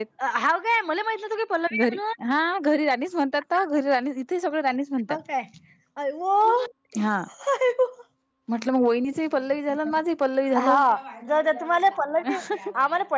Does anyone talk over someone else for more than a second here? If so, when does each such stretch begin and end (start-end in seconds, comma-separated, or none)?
none